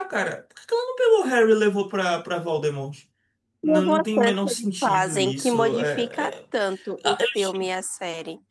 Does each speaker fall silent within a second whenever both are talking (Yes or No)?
No